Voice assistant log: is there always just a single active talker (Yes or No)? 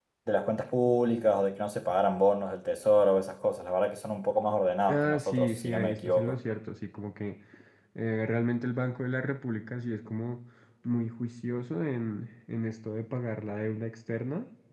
No